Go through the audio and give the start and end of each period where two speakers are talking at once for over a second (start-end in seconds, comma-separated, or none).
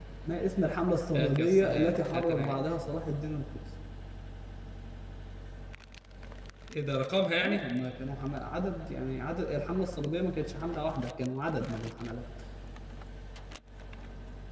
1.2-2.5